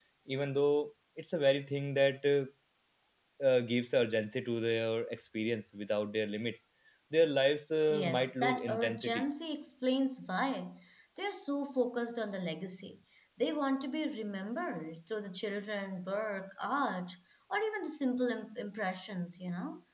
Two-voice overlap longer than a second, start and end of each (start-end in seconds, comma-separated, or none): 7.9-9.2